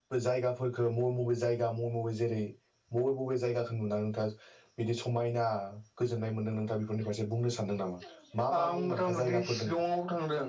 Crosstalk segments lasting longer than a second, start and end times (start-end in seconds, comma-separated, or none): 8.6-9.8